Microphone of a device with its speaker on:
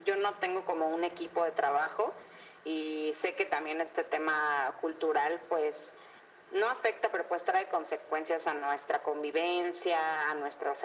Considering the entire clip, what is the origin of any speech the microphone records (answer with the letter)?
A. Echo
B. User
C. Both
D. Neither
A